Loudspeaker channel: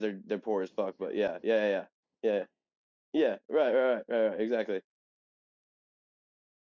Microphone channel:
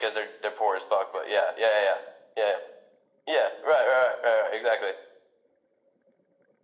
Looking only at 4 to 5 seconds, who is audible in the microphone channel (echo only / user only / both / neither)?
echo only